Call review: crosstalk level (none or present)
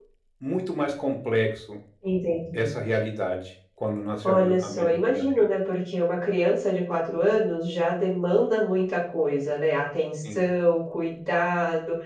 present